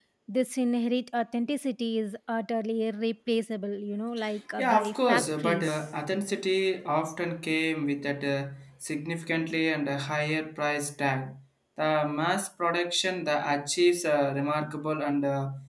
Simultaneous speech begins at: 4.6 s

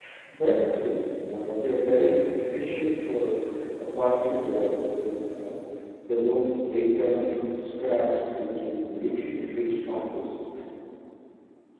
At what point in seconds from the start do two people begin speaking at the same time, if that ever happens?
none

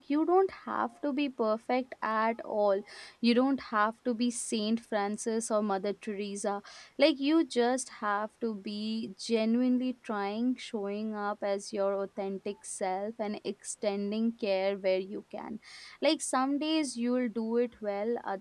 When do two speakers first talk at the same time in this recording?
none

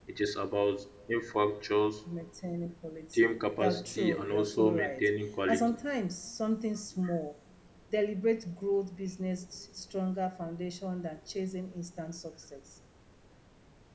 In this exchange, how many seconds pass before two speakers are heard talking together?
3.1 s

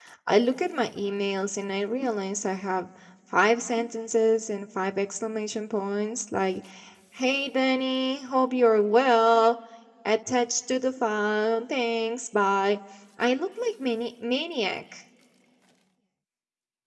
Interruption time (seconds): none

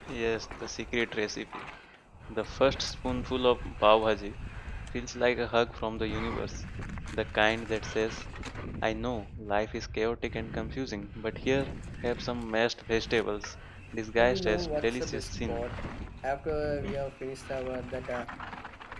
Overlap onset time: 14.2 s

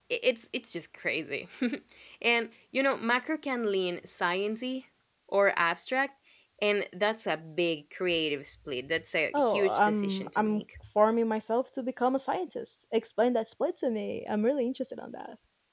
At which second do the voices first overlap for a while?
9.3 s

